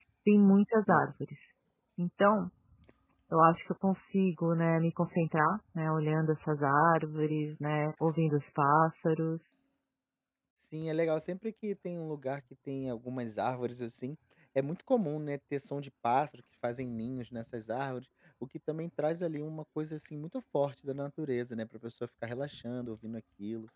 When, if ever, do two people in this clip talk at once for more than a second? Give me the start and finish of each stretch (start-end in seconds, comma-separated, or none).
none